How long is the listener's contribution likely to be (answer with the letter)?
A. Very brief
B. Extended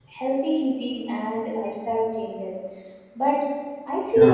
A